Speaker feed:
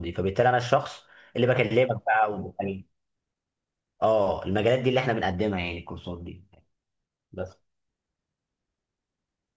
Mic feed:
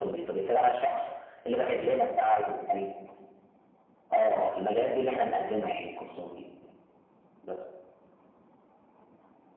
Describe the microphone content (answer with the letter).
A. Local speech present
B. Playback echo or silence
B